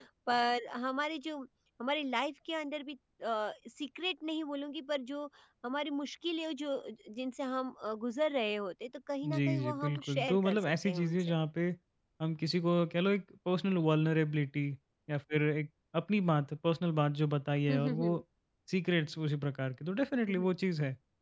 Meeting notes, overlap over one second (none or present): present